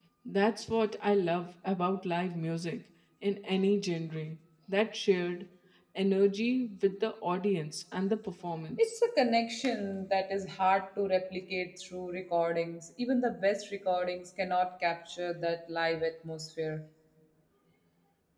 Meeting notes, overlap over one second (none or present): none